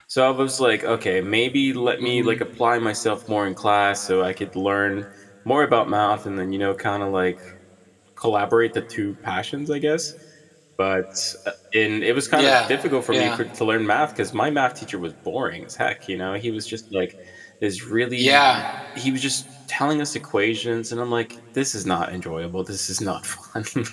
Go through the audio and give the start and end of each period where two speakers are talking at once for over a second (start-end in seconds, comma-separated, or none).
none